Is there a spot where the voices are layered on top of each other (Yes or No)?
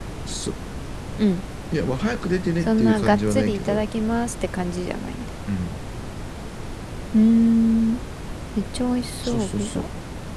Yes